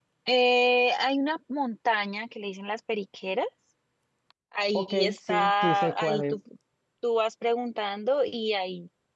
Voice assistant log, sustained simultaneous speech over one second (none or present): present